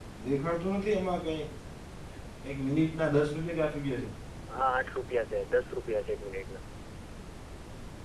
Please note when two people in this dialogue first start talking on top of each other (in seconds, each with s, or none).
none